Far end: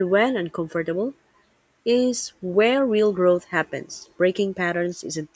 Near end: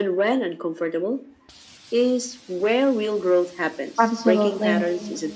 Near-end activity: present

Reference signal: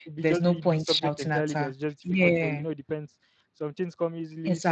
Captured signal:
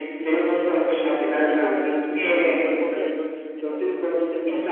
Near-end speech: present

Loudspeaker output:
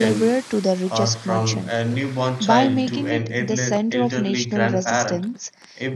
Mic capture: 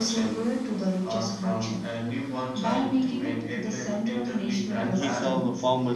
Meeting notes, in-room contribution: present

